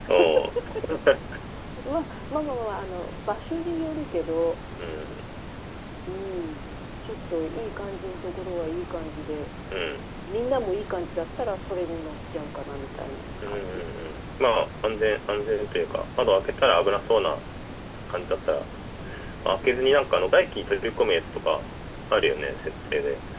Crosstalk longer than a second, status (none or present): none